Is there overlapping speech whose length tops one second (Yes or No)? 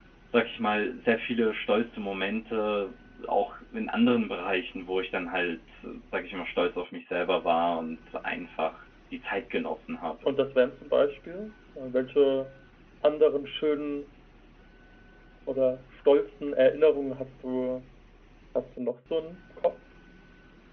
No